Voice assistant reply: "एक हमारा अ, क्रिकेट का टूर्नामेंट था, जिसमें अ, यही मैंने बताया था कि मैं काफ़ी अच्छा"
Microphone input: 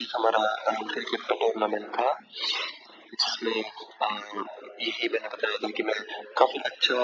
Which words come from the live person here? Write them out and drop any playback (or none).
none